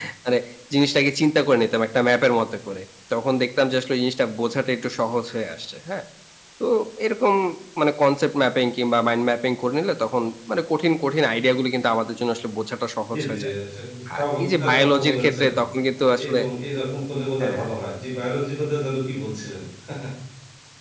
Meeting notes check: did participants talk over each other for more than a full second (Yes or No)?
Yes